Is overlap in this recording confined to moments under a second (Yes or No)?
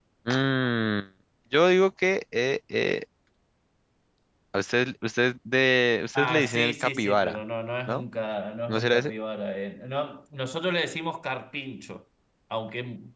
No